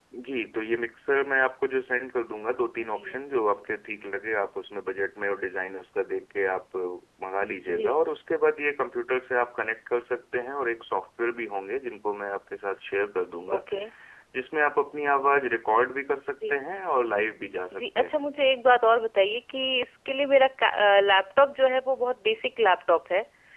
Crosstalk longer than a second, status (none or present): none